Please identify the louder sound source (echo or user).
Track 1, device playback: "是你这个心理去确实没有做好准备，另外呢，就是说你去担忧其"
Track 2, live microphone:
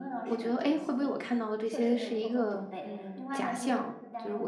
user